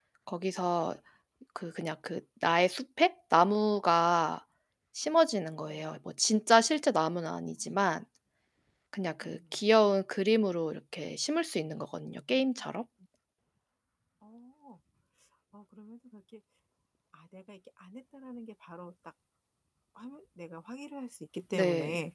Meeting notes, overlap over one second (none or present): none